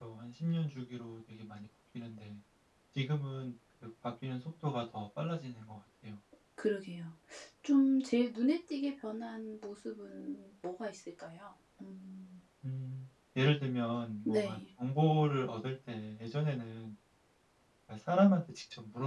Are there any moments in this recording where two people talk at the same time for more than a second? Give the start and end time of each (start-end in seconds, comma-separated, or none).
none